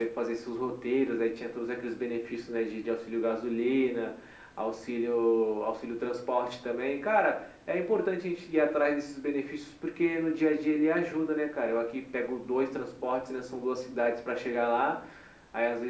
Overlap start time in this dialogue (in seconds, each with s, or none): none